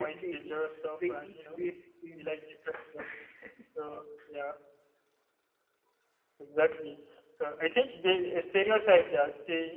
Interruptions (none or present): present